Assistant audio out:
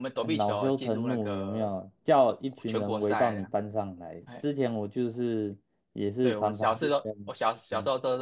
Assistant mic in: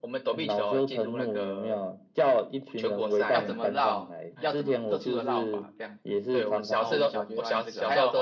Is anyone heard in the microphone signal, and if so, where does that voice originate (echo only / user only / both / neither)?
both